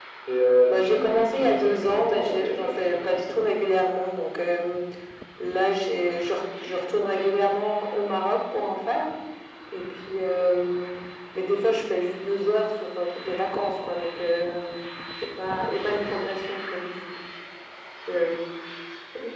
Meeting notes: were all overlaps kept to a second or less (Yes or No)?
No